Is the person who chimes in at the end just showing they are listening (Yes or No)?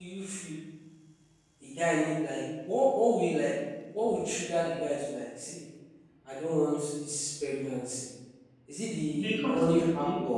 Yes